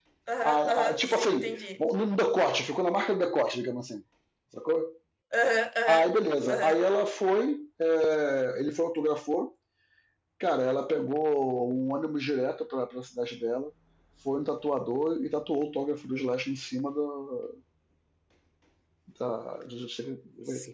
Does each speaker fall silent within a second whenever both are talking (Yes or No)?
No